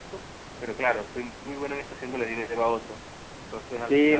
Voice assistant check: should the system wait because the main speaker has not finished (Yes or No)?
No